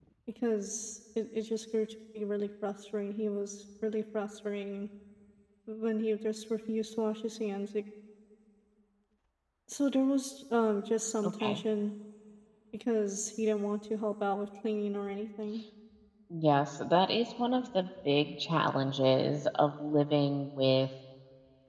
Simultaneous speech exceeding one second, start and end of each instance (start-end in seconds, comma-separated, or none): none